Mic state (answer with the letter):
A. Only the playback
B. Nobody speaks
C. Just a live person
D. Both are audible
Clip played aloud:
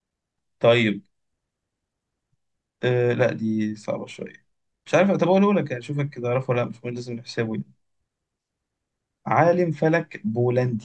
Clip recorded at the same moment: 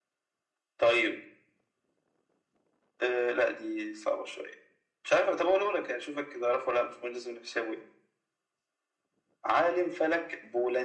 A